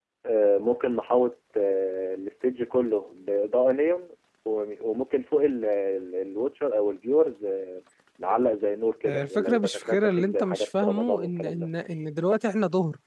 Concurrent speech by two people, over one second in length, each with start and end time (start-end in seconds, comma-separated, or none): 9.0-11.7